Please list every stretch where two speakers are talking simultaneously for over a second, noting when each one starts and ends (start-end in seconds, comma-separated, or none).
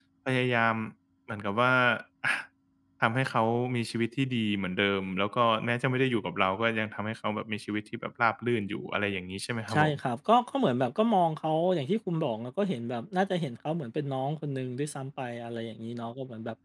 none